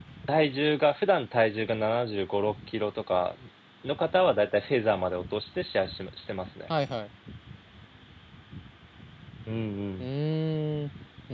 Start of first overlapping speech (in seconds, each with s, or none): none